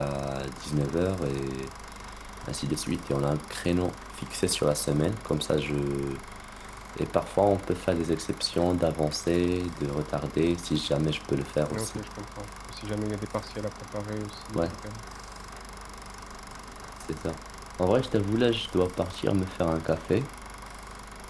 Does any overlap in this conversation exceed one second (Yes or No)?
No